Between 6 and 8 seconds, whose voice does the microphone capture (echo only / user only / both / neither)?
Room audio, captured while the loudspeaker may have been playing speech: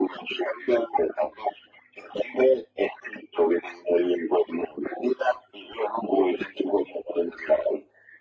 echo only